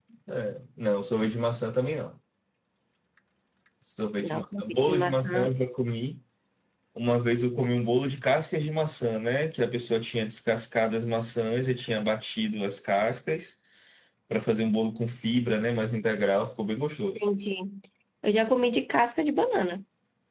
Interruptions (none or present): present